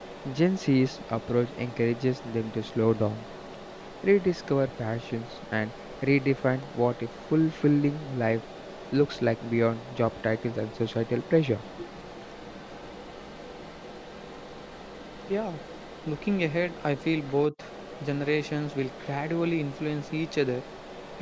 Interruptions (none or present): none